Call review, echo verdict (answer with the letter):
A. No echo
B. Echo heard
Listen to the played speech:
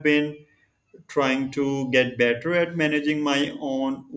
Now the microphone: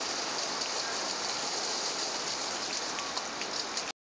A